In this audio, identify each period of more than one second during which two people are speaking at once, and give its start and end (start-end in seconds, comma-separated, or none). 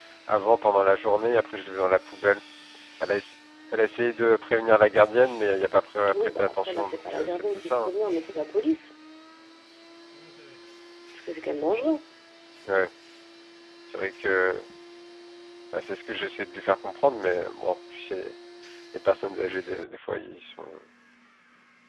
6.1-7.9